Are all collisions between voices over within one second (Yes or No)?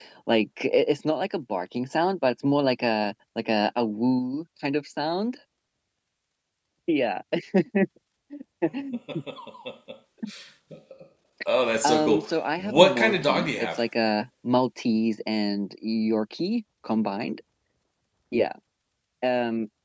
No